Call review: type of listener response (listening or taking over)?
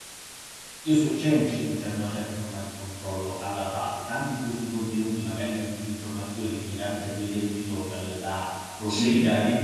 listening